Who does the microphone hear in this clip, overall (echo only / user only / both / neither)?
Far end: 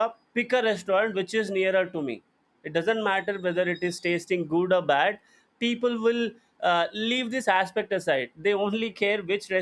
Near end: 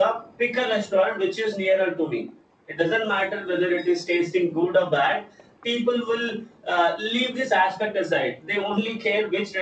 echo only